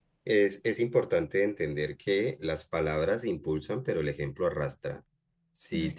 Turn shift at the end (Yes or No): No